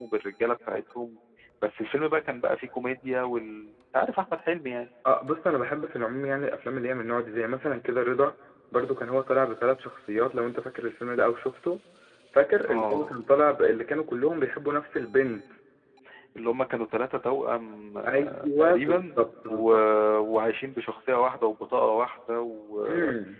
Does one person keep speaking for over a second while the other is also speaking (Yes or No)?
Yes